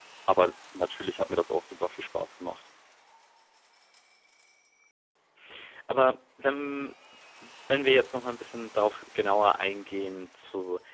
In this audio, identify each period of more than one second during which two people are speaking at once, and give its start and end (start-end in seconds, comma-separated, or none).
none